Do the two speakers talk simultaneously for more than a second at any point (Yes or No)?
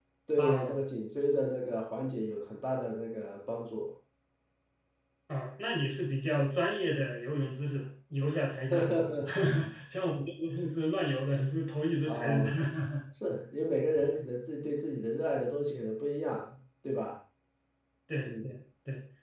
No